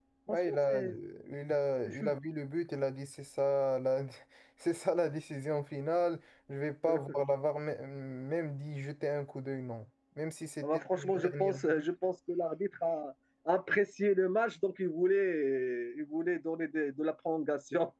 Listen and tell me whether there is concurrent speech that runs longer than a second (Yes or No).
Yes